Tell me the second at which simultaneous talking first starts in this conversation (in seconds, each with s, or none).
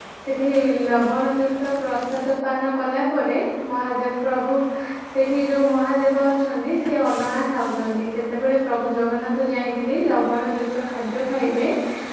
none